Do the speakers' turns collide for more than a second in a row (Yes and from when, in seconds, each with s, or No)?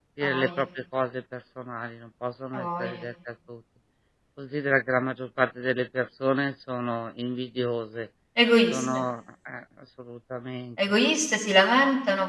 No